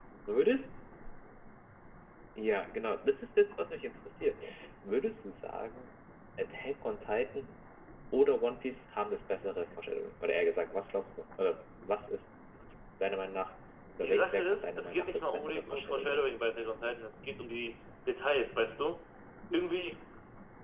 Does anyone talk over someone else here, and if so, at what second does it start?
13.9 s

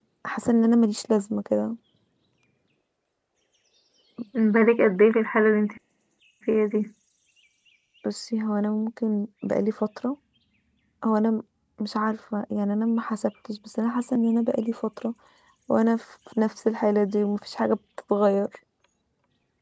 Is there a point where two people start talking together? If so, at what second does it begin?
none

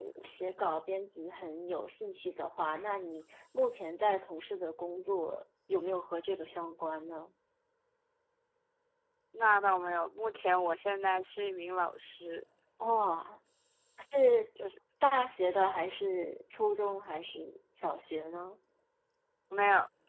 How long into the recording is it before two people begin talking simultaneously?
none

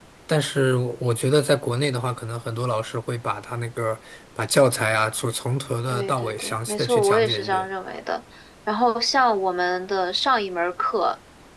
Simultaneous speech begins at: 5.9 s

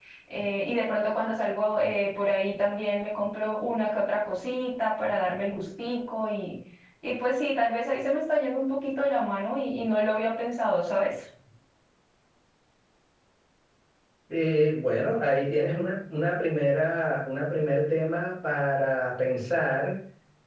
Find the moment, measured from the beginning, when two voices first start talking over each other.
none

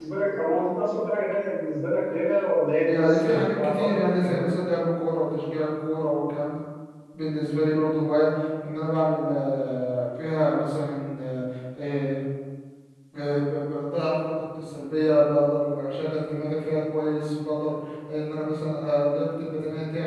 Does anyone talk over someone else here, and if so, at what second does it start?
2.9 s

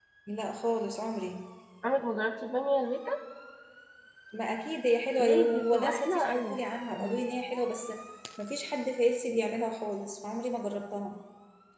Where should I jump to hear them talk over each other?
5.2 s

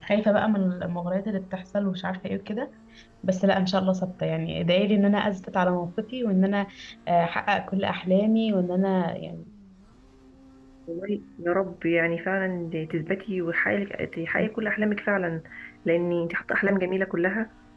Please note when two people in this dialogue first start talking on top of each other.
none

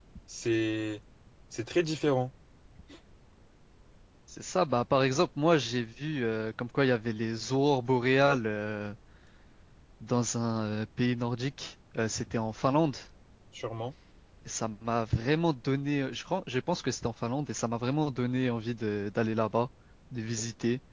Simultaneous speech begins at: none

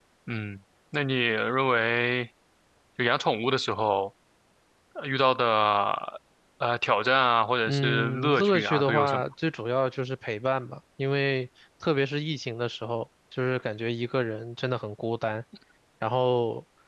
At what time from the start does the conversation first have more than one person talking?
7.7 s

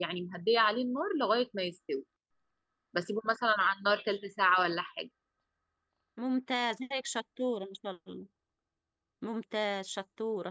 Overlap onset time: none

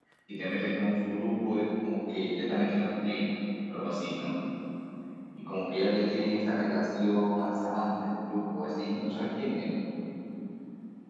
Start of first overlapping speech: none

